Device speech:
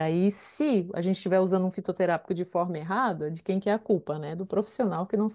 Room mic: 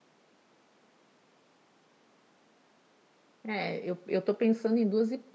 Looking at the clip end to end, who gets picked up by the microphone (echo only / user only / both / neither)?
user only